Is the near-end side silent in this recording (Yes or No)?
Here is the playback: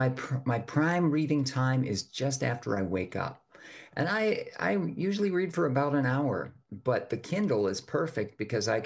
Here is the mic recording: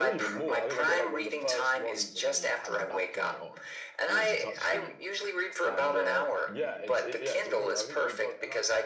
No